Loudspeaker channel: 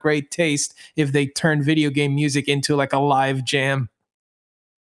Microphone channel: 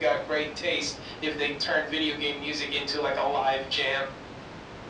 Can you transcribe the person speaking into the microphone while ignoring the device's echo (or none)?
none